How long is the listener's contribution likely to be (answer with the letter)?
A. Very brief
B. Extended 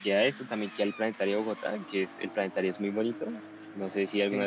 B